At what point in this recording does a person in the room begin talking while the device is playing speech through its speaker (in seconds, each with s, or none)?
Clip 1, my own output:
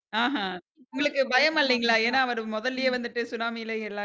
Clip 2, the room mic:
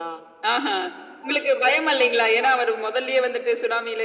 none